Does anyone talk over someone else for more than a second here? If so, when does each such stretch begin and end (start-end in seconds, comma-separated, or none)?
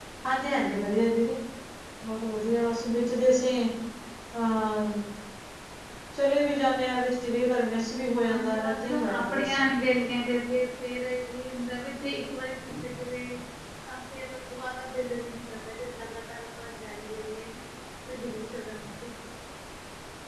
8.3-9.6